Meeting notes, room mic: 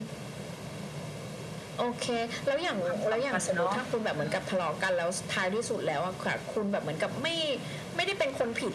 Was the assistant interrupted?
Yes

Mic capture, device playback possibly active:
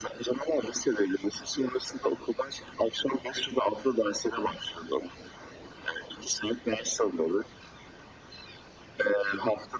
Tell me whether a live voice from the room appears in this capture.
No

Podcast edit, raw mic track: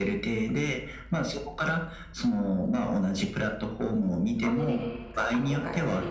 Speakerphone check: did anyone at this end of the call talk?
Yes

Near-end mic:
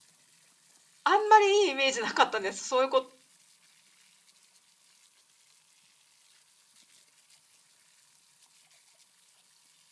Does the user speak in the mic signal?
Yes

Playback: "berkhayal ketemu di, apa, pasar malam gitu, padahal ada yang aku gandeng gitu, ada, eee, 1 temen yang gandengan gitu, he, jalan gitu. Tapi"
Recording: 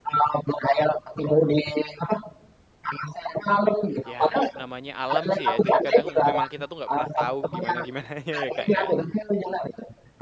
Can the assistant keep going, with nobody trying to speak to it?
No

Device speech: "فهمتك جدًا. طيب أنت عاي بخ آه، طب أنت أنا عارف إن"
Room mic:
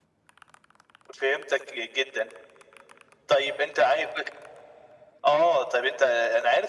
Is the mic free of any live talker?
Yes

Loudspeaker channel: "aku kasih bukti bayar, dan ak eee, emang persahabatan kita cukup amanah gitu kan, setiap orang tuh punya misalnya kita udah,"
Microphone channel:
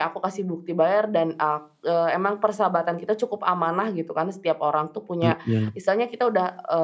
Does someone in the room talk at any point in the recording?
Yes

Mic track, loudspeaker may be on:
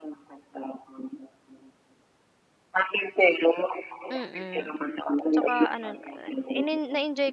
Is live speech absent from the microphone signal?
No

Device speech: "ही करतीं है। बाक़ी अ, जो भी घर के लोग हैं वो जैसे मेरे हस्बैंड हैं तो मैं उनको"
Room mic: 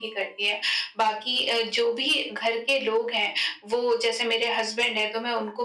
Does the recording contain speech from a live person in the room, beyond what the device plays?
No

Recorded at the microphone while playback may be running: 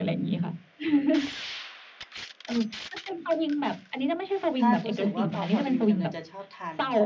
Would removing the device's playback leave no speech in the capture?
No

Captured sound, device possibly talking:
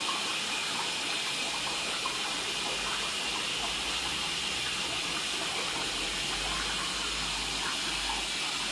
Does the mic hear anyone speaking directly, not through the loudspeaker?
No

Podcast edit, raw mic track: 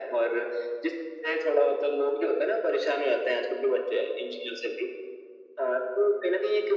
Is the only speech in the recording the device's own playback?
Yes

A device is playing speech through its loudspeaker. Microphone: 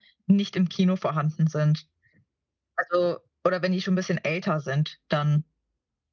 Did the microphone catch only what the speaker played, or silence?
Yes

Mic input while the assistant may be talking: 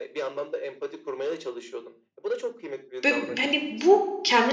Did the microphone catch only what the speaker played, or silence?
No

